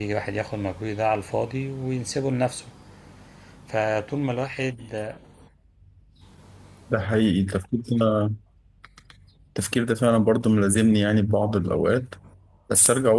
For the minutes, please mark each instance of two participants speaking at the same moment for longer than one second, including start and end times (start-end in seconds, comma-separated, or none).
none